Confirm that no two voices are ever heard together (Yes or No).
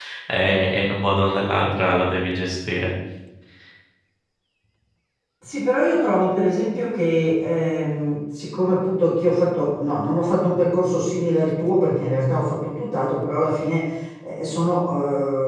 Yes